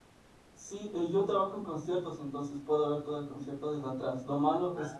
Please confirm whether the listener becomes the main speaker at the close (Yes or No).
No